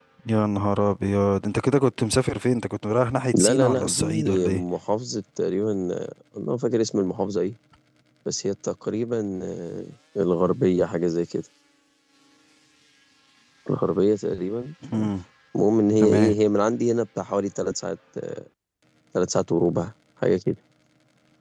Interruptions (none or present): present